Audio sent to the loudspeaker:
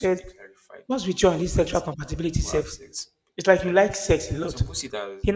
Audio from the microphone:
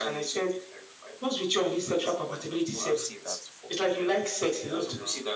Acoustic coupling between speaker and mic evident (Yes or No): Yes